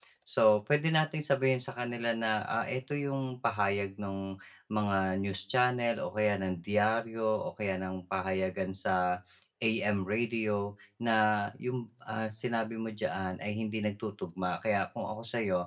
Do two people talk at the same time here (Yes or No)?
No